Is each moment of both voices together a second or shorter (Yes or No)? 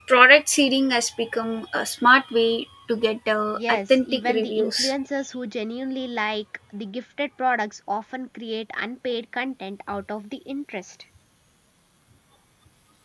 No